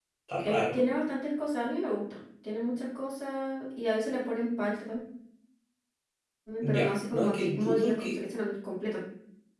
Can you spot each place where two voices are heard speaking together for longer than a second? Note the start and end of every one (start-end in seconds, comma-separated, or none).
6.6-8.2